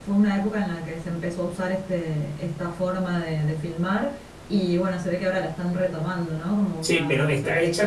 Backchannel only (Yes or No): No